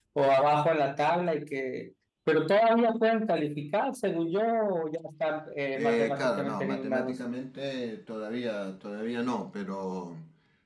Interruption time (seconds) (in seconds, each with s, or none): 5.8 s